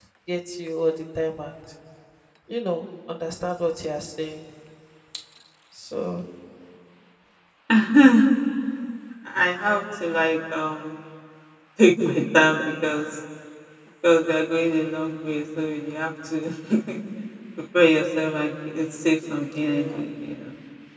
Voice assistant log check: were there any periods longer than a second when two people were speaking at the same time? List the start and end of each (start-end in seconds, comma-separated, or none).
none